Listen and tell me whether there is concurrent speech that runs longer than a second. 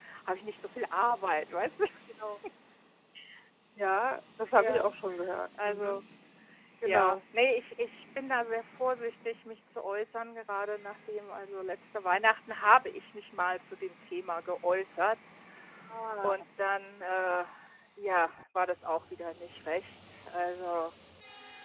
No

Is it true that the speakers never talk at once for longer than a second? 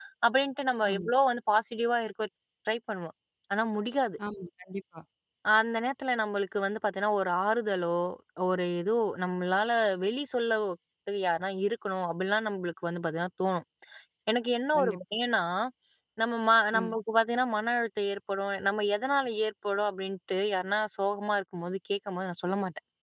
Yes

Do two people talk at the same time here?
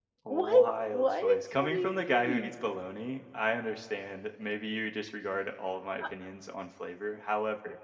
Yes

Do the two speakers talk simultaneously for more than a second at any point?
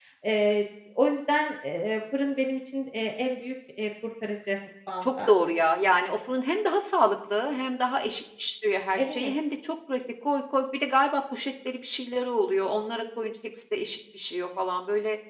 No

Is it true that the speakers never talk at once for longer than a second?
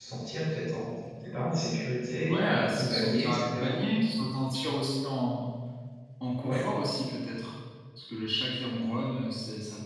No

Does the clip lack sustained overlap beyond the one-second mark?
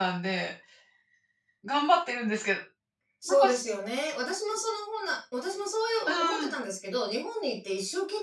Yes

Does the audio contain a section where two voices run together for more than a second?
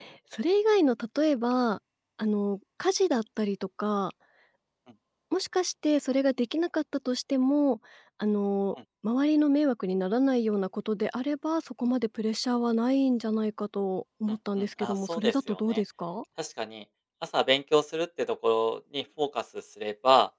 Yes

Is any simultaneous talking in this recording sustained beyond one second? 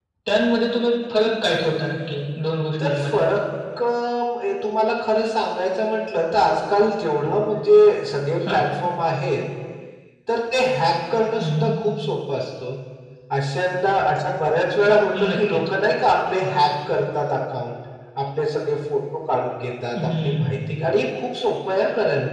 No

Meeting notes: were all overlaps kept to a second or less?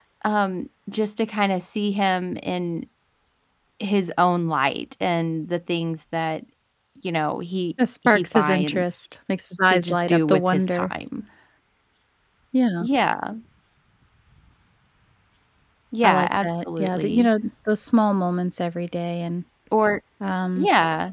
No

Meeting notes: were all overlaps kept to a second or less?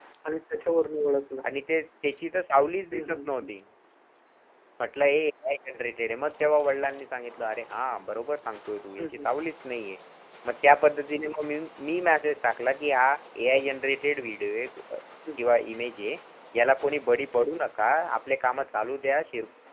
Yes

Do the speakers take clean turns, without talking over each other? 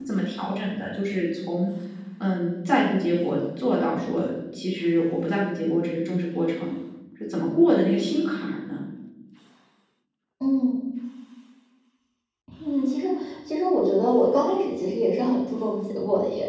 Yes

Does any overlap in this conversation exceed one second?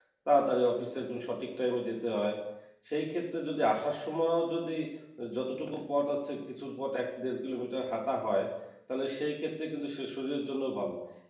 No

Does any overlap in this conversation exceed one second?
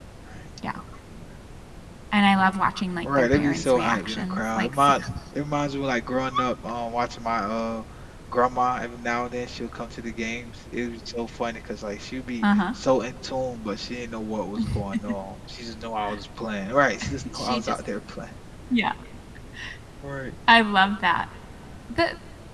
Yes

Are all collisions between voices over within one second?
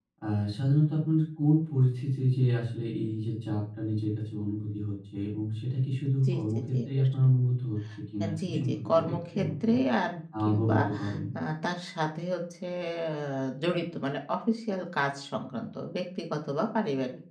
No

